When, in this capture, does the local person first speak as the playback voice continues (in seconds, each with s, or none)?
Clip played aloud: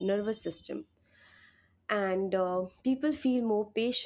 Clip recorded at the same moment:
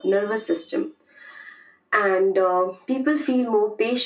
none